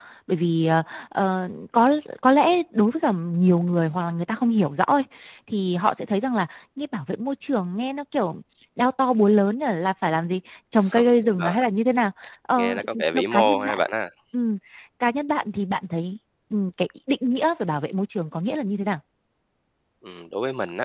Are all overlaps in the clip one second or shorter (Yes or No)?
No